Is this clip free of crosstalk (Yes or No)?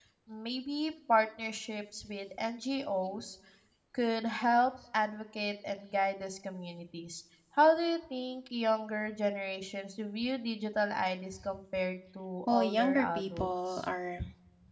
No